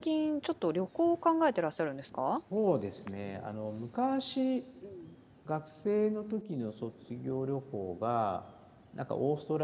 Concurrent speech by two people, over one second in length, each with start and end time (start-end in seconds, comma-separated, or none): none